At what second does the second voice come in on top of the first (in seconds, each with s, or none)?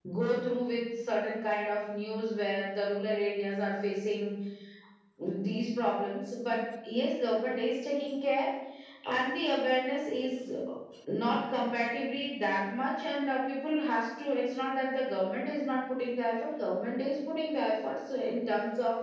none